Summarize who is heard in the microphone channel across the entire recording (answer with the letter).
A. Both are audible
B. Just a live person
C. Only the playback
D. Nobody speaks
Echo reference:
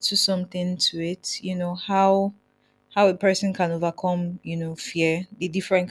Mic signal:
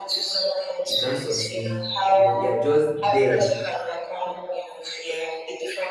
A